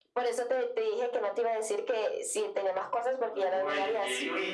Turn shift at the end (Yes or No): Yes